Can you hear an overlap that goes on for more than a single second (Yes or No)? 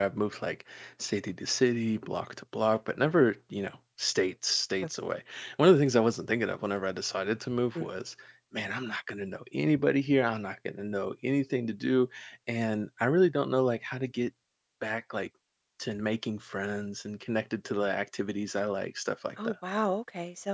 No